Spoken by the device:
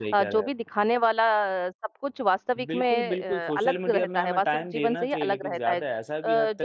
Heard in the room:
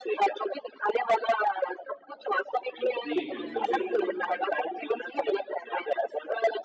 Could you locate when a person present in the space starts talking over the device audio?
2.8 s

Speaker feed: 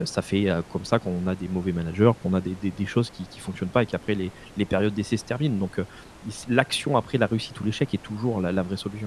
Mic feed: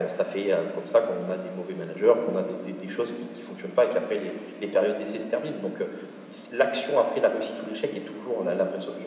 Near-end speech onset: none

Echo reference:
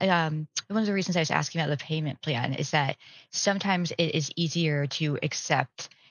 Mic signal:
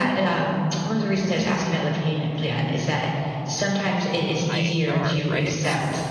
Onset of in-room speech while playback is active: 4.3 s

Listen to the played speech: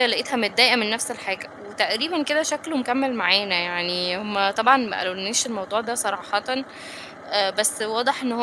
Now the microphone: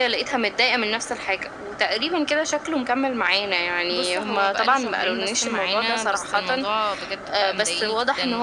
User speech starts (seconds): 3.9 s

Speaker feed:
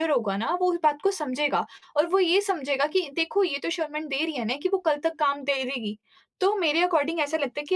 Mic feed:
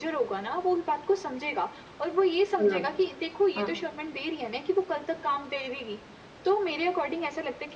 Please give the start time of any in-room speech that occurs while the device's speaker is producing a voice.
2.6 s

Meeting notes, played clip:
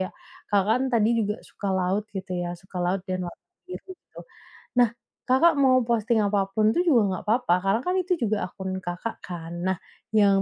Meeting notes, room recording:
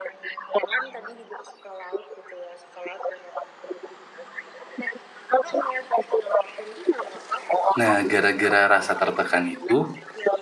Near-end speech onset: 7.8 s

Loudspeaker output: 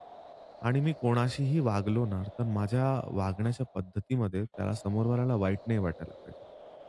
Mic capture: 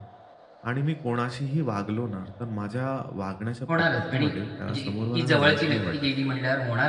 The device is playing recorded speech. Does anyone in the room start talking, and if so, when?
3.7 s

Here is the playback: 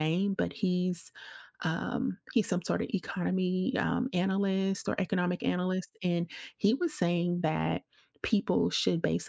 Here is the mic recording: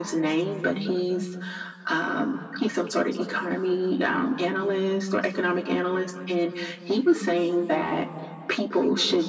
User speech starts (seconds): none

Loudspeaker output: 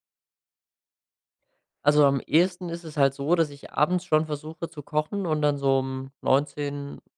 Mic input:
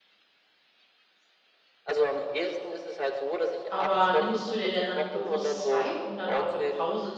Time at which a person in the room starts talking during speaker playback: 3.7 s

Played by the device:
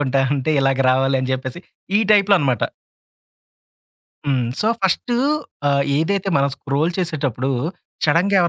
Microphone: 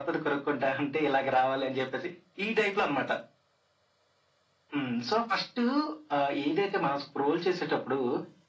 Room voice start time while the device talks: none

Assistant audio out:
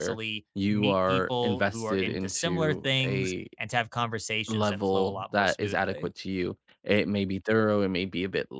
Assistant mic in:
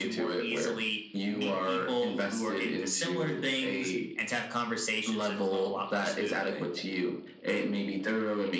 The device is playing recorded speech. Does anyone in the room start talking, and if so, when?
none

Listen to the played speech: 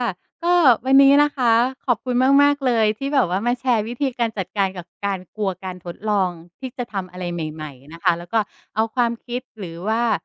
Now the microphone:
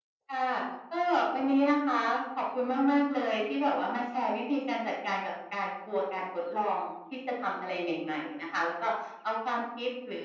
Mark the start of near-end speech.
none

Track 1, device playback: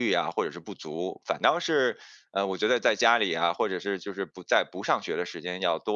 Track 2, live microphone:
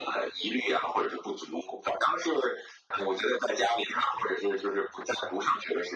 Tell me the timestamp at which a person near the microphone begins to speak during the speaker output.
none

